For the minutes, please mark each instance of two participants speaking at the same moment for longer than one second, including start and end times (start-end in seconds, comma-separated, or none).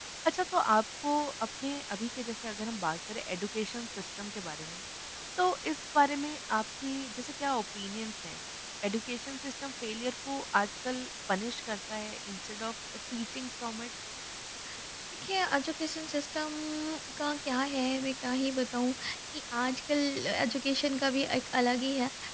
none